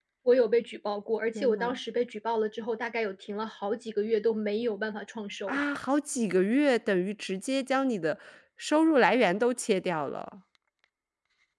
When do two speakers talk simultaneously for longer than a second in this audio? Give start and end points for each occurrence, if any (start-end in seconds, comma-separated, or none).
none